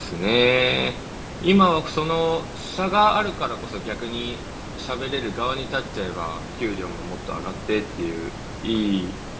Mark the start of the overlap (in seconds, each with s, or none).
none